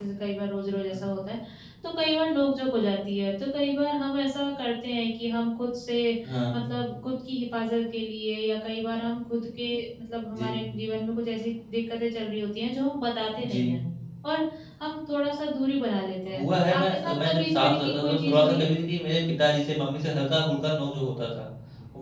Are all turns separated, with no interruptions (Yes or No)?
No